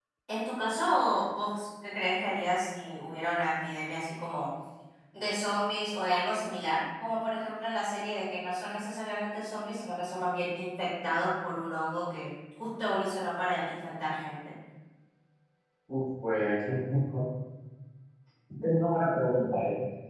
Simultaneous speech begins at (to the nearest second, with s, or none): none